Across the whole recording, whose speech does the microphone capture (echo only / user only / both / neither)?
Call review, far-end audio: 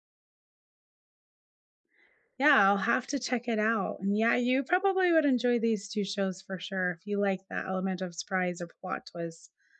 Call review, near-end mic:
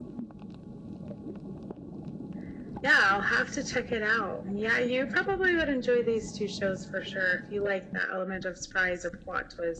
echo only